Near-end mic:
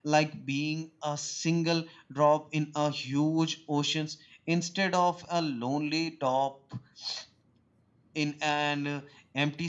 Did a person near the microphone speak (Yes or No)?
No